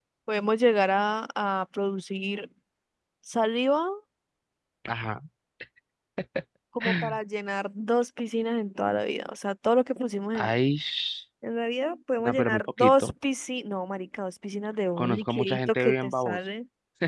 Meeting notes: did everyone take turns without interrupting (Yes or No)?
No